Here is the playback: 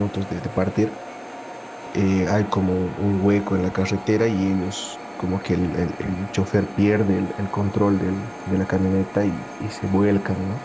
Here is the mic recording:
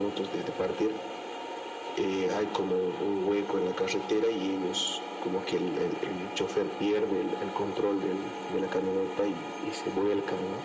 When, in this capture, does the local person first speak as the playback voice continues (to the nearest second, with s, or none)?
none